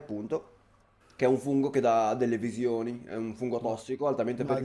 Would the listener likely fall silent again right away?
No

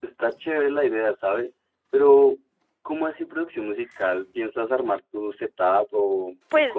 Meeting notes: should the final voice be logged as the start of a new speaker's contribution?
Yes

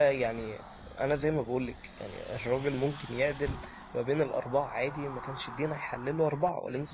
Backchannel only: No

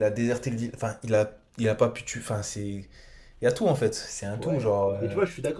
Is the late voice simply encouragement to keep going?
No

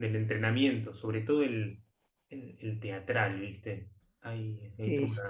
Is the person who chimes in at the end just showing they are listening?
Yes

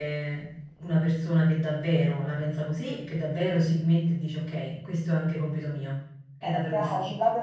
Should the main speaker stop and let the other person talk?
Yes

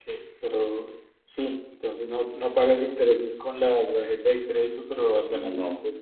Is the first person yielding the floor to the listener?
No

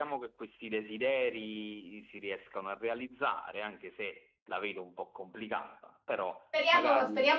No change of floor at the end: No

